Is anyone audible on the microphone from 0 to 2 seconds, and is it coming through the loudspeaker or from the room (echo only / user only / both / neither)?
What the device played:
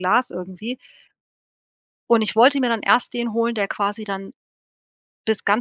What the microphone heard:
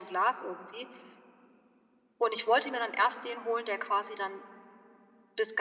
echo only